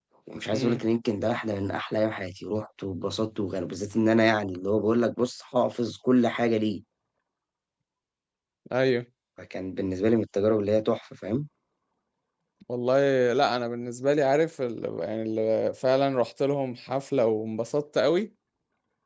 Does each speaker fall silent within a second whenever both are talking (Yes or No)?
Yes